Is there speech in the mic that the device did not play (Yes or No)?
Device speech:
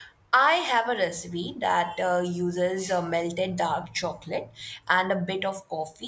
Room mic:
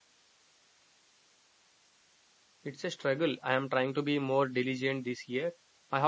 Yes